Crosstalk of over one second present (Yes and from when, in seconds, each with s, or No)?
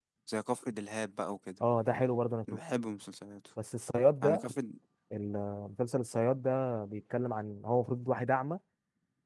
No